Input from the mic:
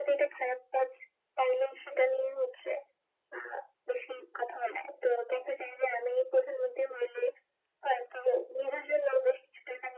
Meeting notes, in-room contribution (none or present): none